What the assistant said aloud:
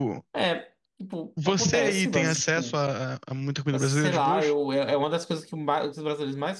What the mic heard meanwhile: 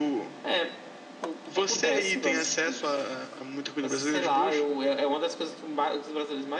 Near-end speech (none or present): none